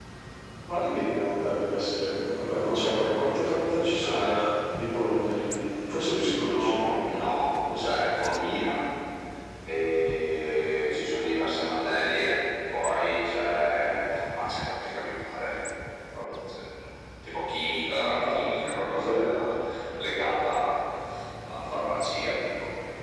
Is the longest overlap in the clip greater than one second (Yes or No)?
Yes